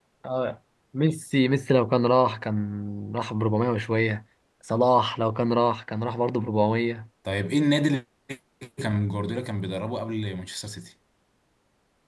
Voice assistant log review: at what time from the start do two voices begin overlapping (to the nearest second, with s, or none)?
none